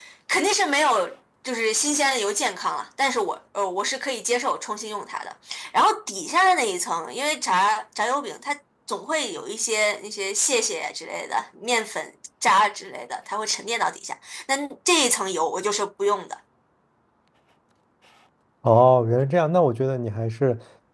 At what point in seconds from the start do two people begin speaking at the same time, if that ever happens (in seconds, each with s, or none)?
none